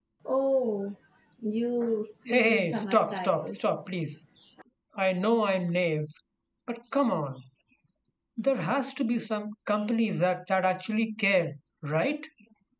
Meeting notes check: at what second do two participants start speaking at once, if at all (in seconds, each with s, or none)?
2.3 s